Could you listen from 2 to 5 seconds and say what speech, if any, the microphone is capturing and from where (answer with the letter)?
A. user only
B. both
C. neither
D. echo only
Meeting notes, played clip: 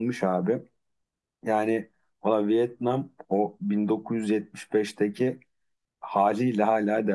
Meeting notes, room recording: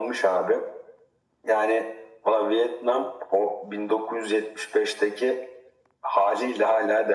D